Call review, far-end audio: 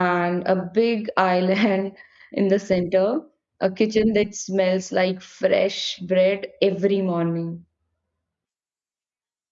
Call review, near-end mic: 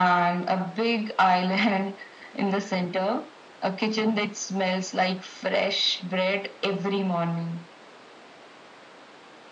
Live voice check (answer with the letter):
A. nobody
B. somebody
A